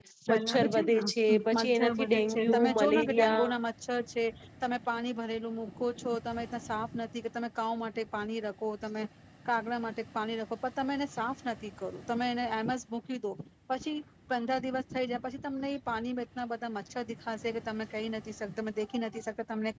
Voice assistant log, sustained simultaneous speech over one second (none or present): present